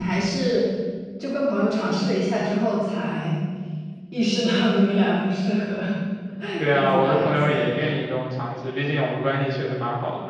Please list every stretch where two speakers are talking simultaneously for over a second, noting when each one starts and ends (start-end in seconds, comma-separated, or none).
6.7-8.0